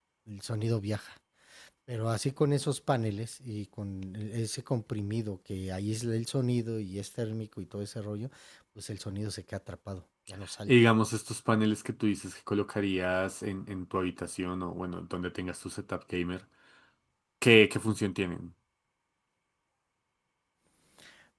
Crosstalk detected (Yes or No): No